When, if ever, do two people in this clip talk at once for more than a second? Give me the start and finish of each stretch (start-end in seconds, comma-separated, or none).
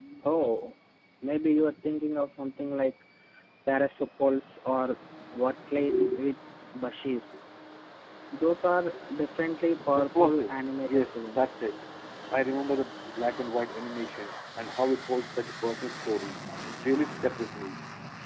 10.0-11.4